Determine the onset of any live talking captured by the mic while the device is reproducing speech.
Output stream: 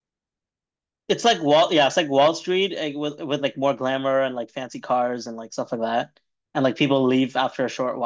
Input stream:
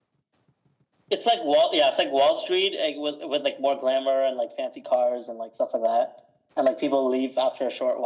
none

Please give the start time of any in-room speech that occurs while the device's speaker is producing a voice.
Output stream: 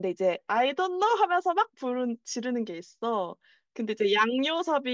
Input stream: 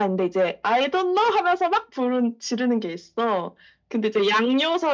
none

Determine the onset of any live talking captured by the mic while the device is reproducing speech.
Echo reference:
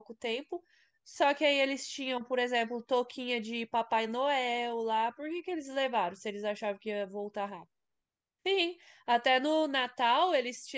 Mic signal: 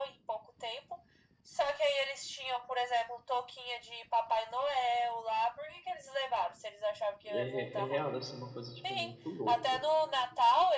7.3 s

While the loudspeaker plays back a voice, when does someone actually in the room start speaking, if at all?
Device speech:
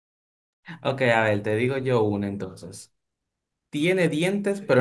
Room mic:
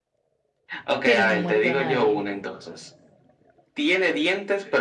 1.0 s

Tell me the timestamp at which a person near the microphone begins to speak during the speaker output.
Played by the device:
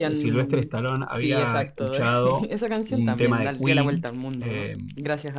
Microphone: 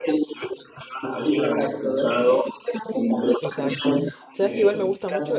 3.4 s

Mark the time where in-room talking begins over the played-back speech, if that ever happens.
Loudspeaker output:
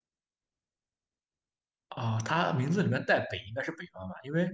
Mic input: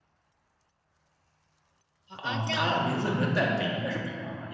2.1 s

